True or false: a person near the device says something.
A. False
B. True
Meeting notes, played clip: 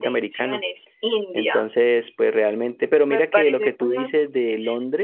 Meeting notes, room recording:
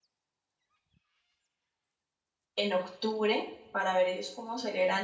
B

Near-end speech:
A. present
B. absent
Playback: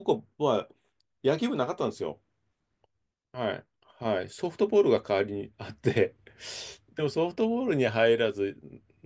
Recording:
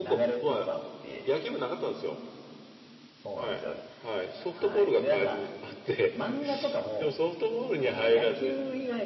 A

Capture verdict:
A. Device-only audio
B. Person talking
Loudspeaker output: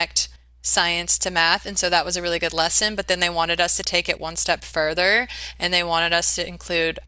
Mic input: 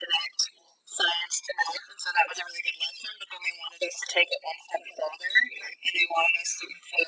A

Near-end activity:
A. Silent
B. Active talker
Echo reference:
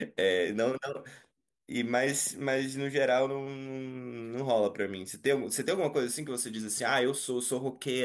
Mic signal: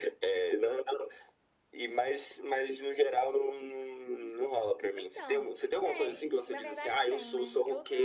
B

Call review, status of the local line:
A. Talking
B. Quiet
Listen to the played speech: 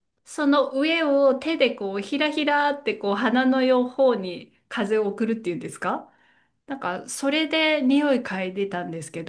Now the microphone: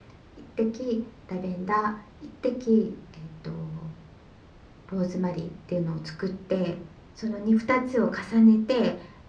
A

